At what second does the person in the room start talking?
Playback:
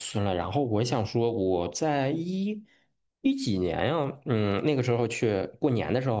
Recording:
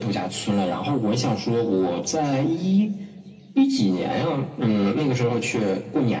none

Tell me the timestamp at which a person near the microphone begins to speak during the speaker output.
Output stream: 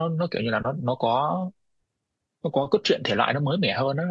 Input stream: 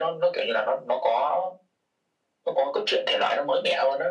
none

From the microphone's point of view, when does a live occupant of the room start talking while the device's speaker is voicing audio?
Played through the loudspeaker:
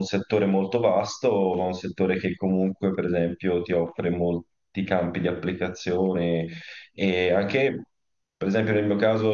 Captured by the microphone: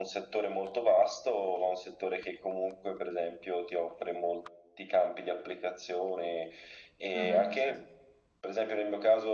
7.1 s

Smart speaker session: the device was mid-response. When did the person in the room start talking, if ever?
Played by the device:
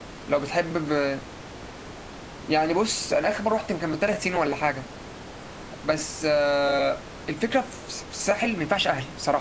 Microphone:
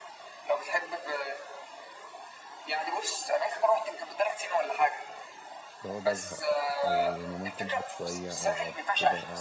5.8 s

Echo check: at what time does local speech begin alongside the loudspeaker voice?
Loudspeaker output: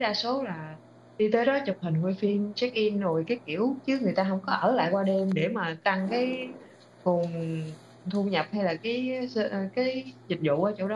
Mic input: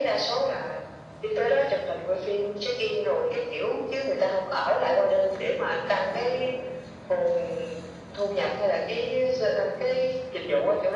none

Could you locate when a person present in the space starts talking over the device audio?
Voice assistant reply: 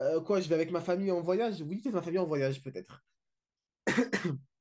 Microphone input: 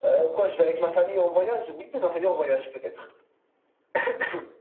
none

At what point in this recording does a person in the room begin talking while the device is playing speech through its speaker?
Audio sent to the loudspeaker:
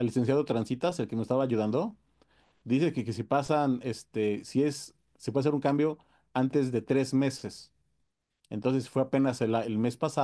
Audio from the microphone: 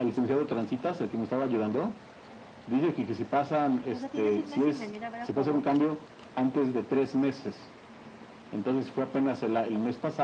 3.9 s

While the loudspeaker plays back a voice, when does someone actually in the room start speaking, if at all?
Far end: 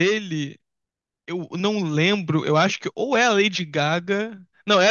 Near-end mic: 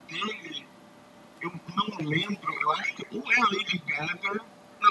none

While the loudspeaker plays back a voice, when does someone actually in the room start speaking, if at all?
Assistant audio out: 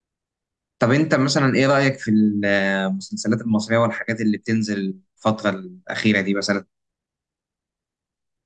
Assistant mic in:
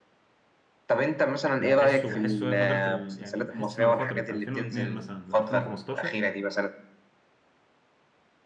1.6 s

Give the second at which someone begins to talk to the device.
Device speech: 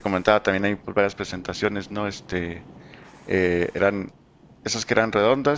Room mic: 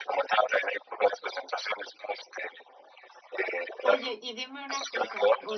3.8 s

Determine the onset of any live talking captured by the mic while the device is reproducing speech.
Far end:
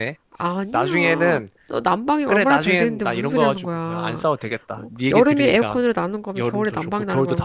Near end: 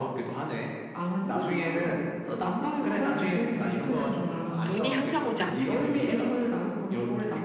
4.3 s

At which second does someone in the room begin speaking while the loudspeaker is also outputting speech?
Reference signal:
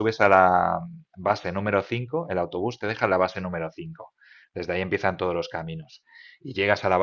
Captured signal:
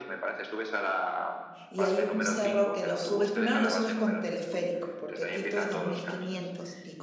1.7 s

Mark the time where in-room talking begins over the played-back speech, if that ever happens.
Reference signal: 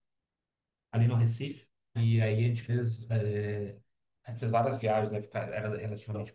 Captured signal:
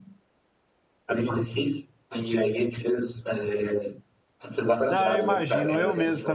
4.9 s

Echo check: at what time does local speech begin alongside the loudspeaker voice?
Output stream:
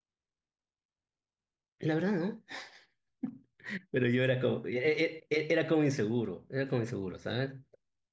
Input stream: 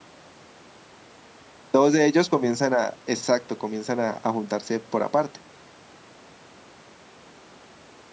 1.7 s

